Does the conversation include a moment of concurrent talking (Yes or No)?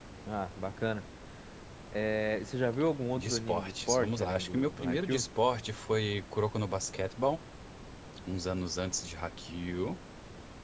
Yes